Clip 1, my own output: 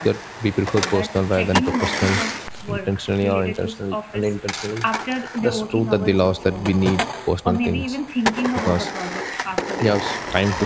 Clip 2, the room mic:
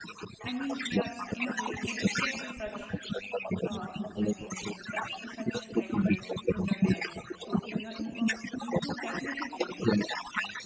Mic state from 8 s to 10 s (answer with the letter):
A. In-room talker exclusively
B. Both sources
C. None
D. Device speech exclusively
B